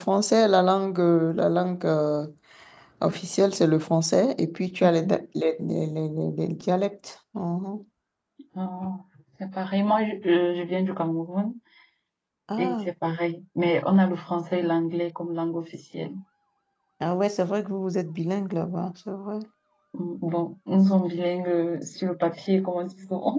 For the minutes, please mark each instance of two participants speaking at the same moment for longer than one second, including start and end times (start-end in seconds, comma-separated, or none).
none